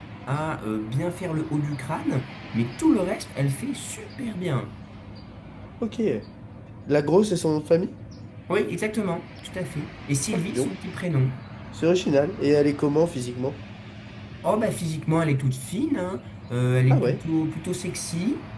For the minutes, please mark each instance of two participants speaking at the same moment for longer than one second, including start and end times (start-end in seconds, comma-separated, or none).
none